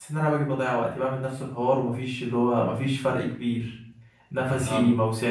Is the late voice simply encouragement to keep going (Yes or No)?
Yes